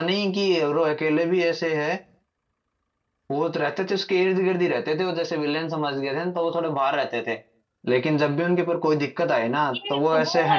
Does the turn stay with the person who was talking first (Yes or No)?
No